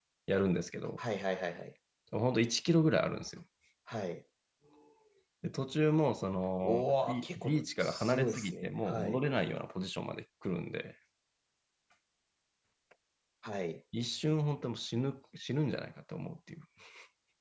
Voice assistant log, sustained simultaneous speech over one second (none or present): present